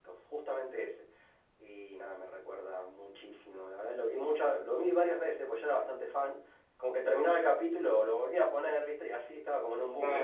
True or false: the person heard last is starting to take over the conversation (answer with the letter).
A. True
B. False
A